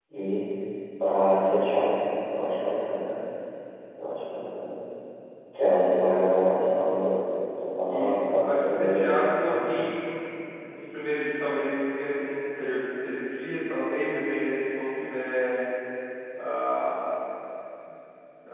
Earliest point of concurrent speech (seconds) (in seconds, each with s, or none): 7.9 s